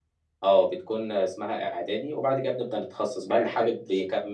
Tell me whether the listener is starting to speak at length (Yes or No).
No